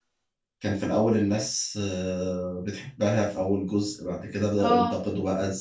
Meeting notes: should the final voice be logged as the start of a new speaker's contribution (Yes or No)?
No